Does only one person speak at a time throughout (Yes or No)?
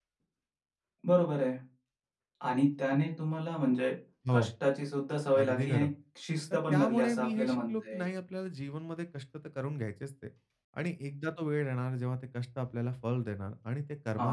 No